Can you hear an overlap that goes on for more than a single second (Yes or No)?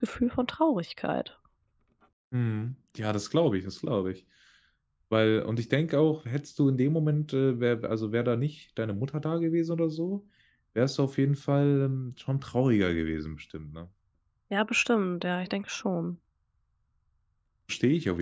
No